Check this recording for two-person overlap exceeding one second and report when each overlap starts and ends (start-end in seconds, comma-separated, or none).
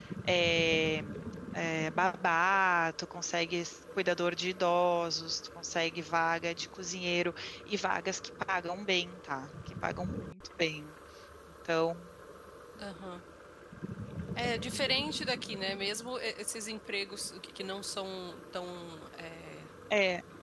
none